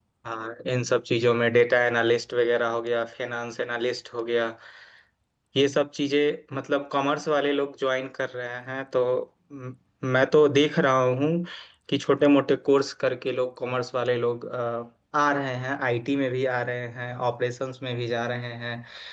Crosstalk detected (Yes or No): No